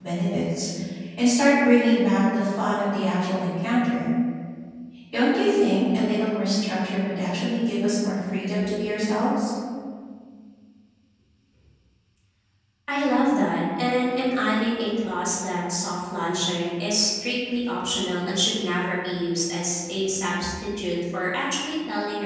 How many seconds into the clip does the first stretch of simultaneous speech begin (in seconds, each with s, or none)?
none